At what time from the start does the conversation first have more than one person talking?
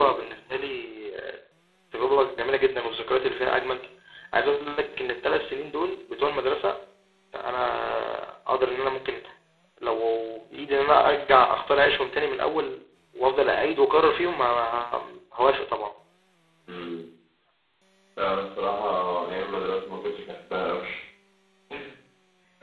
none

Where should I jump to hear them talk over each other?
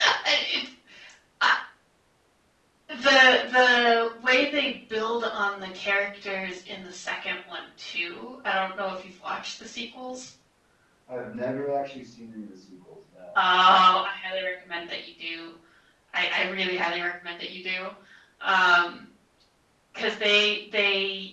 none

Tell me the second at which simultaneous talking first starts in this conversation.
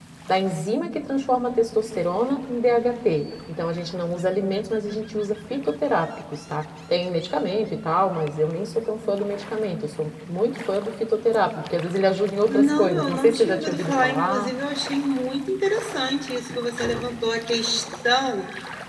12.5 s

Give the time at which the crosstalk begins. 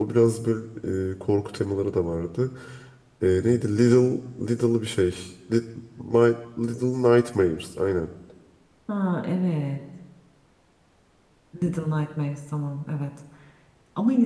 none

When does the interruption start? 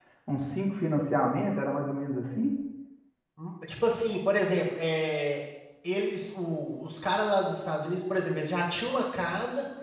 none

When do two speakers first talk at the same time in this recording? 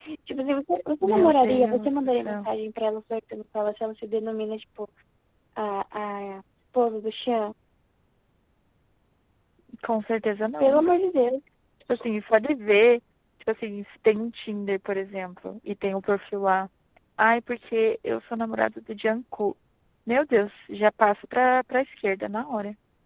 1.0 s

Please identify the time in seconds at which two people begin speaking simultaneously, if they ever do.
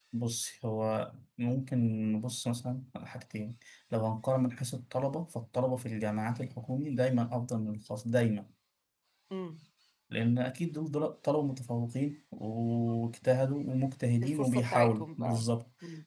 14.2 s

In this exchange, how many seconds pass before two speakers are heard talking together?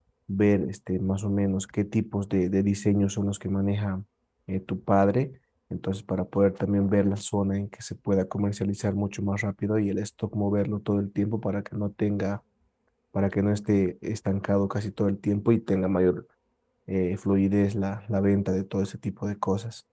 none

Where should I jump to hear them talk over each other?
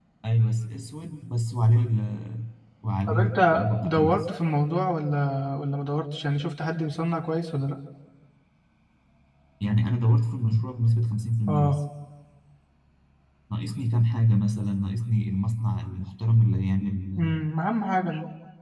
3.1 s

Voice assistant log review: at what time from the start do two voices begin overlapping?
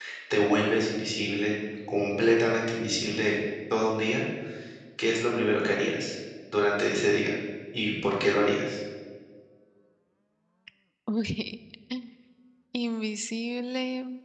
none

